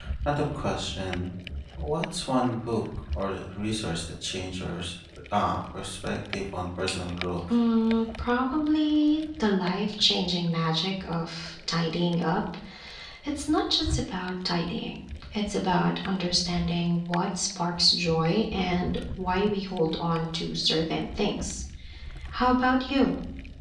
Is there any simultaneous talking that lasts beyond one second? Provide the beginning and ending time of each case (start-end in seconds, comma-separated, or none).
none